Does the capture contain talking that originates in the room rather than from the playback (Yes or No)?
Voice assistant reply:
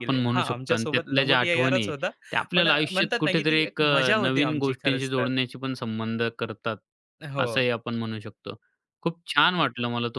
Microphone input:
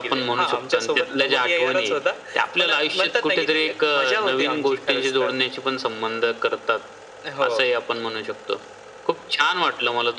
No